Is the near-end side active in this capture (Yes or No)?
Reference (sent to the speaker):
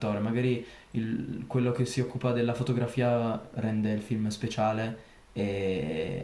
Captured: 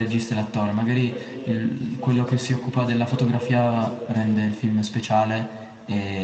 Yes